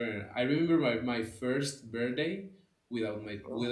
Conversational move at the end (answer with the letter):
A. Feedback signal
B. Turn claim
A